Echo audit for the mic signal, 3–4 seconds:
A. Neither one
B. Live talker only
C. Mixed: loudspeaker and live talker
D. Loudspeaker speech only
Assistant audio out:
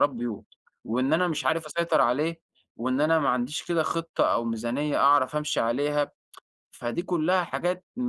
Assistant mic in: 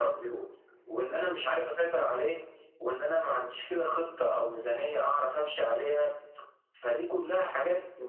D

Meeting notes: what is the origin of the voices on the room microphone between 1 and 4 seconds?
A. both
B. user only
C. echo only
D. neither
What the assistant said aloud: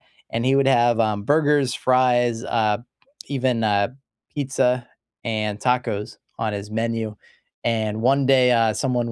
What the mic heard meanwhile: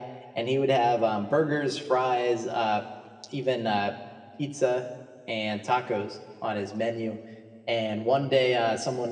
C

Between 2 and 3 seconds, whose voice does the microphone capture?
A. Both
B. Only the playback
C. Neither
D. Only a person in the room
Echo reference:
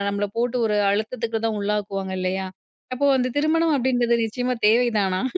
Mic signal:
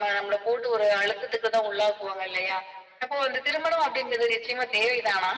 B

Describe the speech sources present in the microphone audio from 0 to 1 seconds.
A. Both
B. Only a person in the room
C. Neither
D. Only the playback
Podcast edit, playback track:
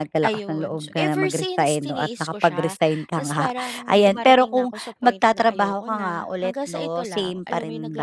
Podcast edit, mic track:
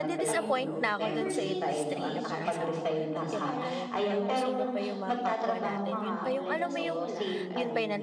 A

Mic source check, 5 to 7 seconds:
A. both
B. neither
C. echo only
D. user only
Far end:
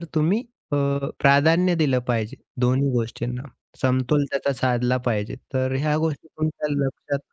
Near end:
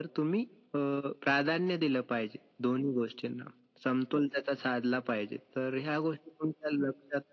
C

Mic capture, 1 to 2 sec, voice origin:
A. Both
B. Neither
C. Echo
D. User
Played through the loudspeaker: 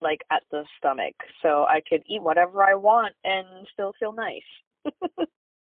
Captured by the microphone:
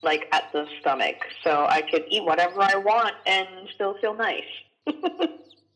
C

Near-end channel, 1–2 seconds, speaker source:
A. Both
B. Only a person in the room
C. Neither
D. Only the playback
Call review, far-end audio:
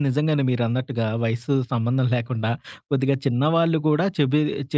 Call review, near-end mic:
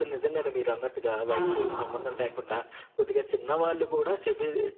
A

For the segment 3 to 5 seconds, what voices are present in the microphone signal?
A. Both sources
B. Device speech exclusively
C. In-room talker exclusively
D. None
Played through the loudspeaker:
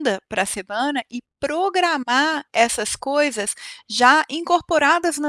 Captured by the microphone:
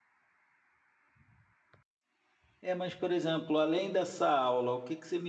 C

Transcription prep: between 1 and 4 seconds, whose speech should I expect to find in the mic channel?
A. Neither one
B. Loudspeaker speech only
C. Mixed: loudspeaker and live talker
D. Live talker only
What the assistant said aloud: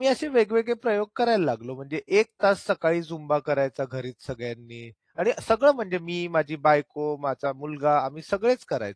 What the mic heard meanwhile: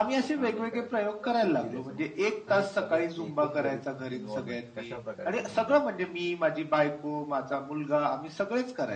C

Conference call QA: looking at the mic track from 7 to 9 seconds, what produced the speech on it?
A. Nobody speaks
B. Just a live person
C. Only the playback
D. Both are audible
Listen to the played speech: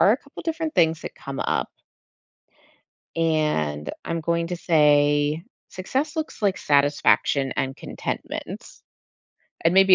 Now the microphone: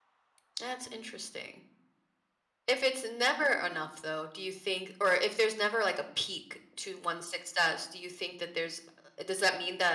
B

